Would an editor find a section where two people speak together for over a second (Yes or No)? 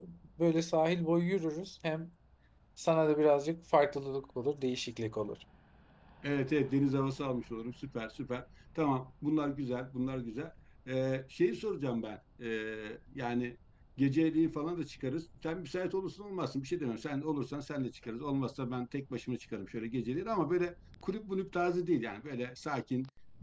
No